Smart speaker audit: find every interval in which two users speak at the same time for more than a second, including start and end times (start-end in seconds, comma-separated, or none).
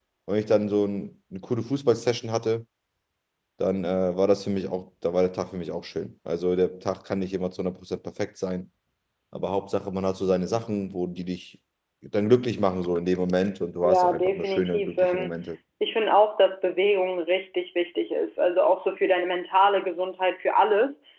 13.8-15.3